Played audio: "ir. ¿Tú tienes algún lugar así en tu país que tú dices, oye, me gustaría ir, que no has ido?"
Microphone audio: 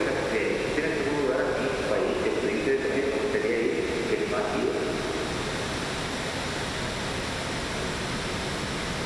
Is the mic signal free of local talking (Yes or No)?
Yes